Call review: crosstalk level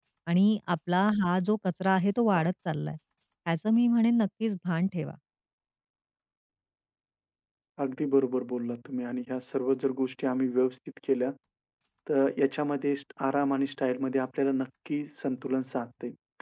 none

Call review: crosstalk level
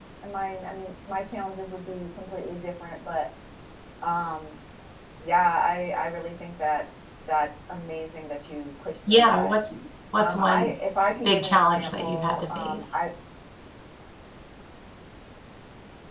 present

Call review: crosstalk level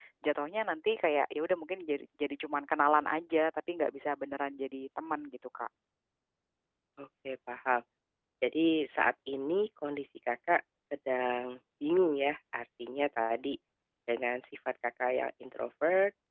none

